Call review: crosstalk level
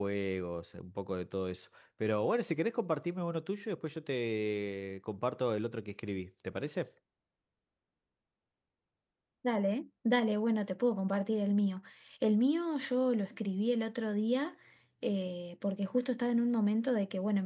none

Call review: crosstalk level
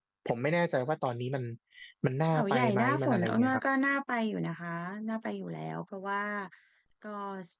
present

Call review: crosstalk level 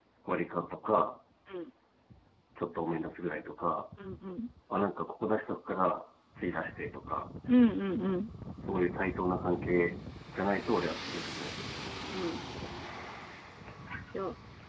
none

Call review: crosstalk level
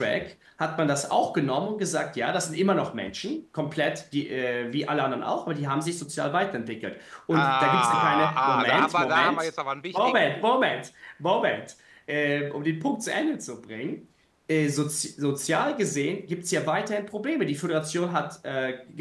present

